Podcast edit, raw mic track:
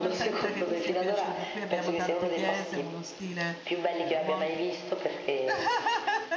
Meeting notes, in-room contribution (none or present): present